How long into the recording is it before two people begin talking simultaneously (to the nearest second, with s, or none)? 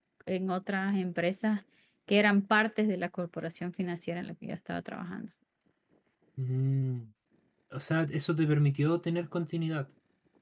none